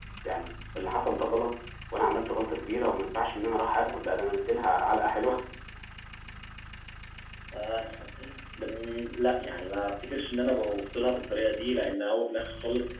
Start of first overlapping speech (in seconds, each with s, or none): none